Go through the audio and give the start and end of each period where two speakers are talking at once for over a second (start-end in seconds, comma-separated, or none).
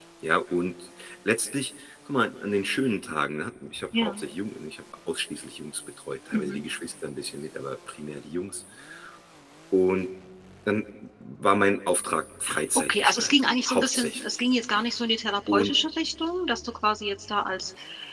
12.9-14.4